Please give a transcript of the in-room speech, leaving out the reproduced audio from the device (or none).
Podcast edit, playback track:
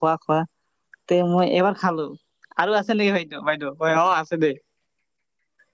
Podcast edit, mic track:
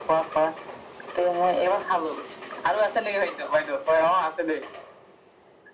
none